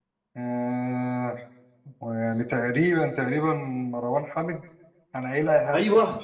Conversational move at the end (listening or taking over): taking over